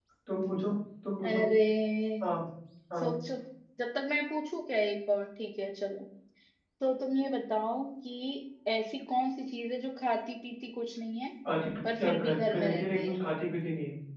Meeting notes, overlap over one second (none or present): present